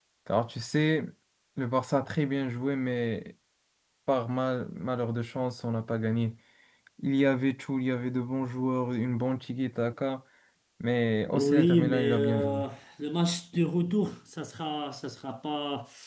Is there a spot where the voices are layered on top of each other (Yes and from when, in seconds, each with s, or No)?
Yes, from 11.3 s